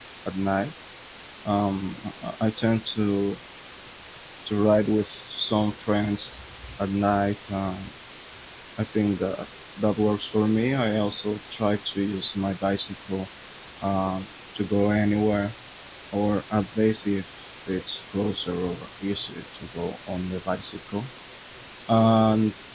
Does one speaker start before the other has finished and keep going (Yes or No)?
No